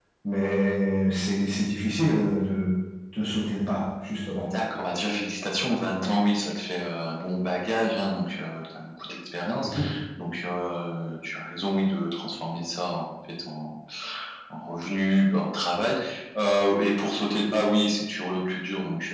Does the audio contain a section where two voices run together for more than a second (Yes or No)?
No